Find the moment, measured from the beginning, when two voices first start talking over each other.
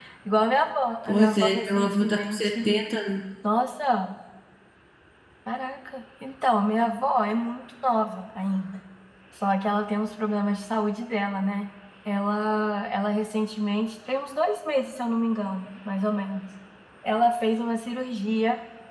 1.1 s

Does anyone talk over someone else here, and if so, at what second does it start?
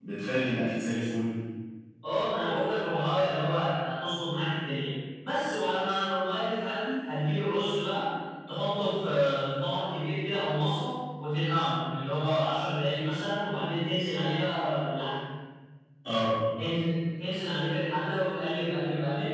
none

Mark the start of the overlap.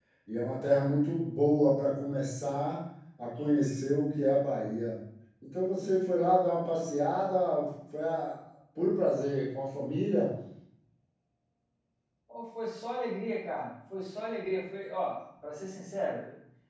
none

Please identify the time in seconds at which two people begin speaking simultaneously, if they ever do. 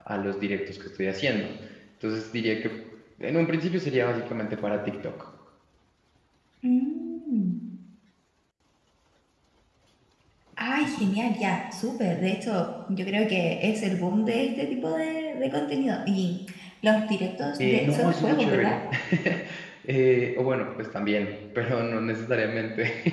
17.6 s

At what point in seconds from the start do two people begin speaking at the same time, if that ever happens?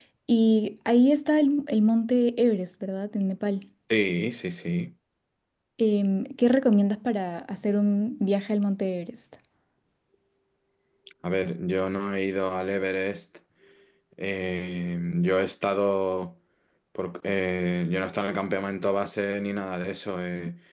none

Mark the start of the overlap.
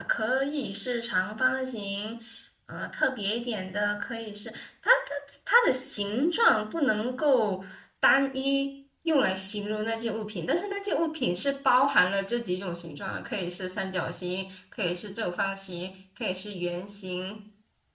none

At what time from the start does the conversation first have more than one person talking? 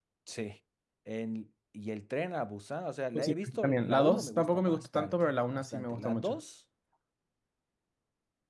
3.1 s

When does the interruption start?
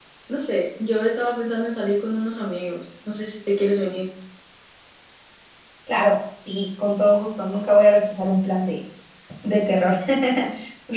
none

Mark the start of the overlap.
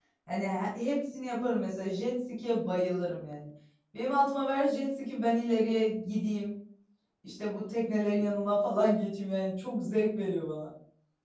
none

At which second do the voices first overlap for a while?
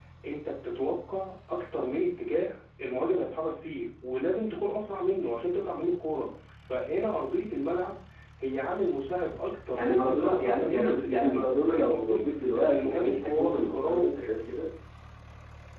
9.7 s

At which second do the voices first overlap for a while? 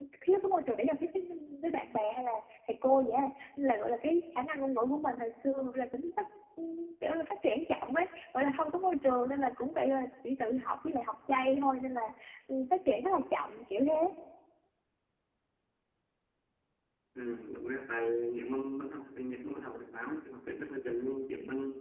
none

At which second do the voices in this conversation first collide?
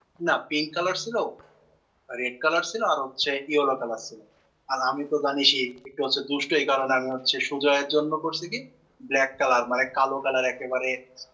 none

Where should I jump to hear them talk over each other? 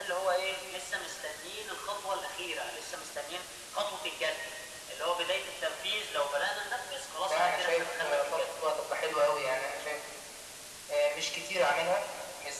7.2 s

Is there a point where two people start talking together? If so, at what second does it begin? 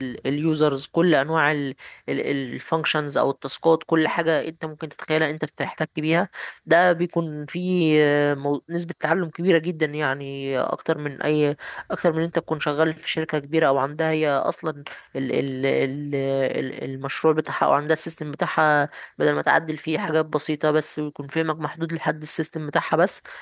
none

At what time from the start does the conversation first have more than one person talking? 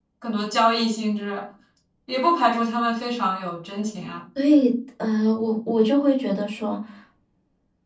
none

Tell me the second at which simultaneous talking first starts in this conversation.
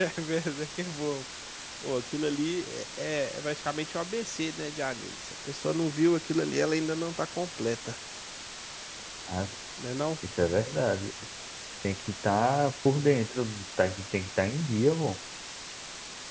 none

